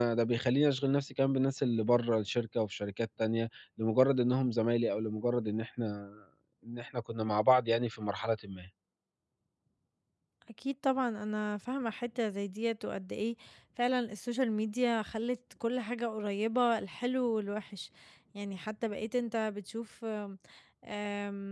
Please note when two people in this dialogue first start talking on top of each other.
none

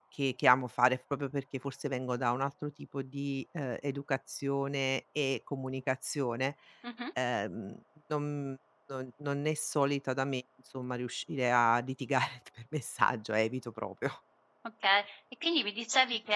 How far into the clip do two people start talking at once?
none

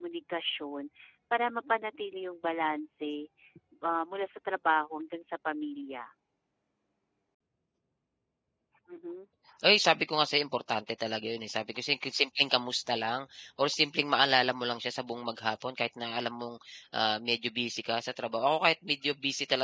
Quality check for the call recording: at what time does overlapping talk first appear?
none

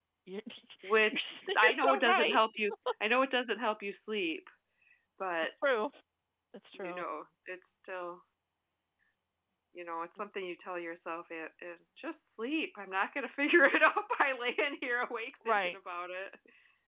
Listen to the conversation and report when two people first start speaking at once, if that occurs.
1.1 s

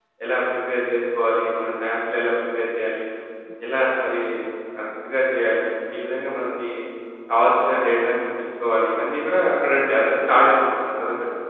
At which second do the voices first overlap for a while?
none

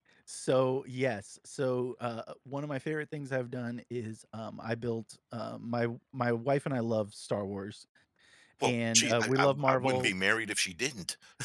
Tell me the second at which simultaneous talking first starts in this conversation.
8.6 s

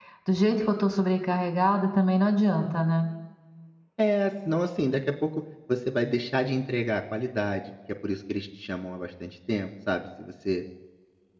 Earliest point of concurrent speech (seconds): none

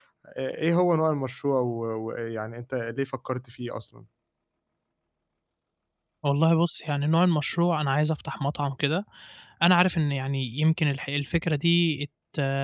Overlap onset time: none

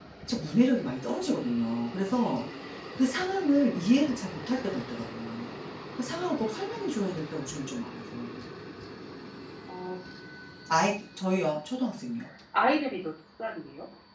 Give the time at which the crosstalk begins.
none

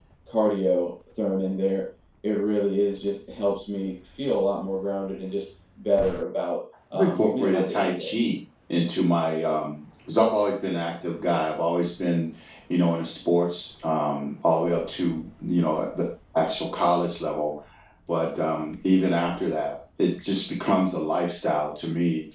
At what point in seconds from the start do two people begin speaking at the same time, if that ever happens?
6.9 s

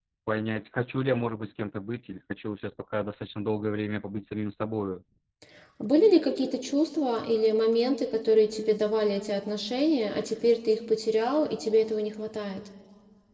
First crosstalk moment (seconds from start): none

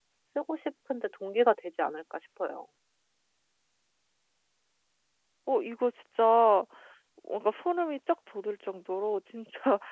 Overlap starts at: none

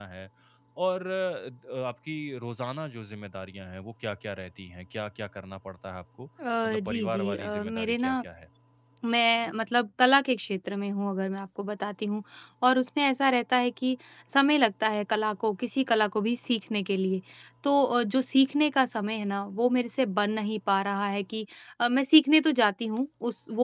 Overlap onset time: 6.4 s

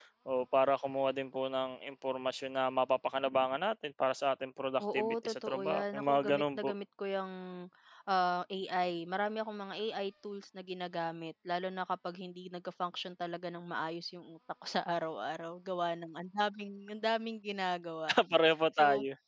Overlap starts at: 4.8 s

